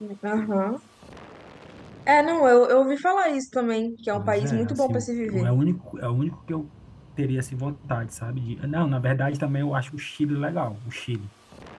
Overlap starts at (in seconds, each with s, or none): 4.1 s